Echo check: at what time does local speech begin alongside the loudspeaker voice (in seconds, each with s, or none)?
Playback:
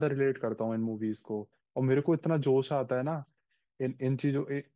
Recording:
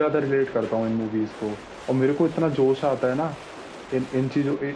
none